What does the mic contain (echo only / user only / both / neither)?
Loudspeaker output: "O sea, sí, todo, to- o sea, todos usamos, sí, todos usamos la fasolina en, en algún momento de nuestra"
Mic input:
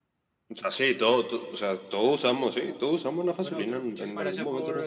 both